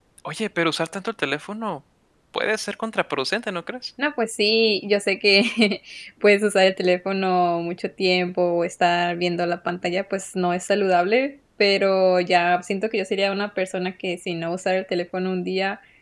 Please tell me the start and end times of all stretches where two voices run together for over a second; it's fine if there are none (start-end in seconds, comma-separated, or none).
none